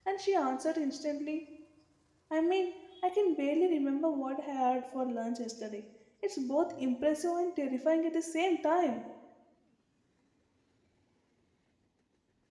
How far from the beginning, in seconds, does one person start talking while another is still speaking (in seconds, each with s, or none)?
none